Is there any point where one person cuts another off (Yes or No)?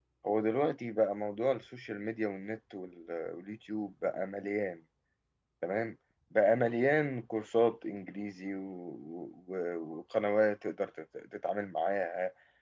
No